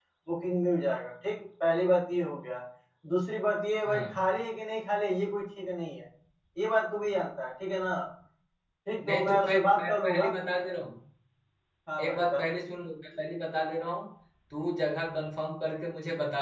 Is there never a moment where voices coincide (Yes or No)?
No